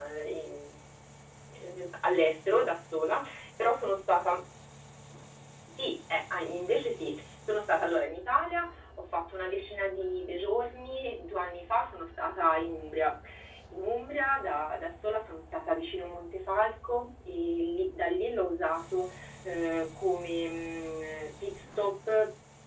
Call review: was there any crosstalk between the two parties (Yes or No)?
No